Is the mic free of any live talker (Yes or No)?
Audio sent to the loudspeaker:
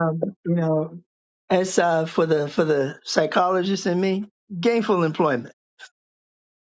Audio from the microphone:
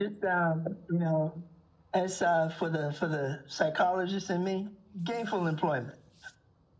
Yes